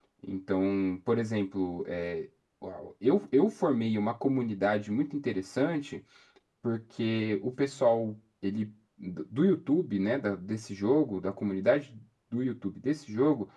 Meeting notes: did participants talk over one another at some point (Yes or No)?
No